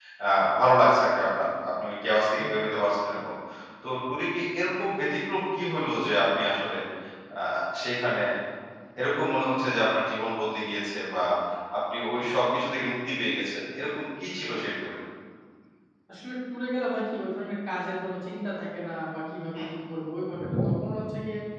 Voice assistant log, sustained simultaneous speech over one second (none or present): none